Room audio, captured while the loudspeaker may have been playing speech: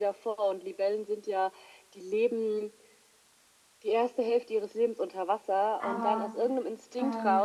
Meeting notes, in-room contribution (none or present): present